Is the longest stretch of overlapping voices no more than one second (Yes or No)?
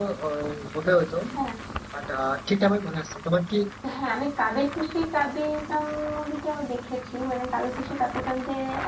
Yes